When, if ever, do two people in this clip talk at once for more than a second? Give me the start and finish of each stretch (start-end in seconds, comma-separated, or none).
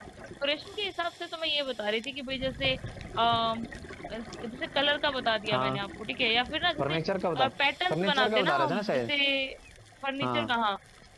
7.9-9.1